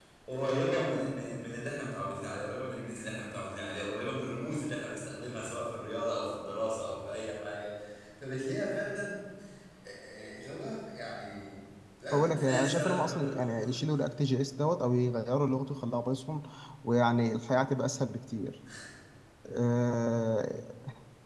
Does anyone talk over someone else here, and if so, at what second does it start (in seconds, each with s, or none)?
12.1 s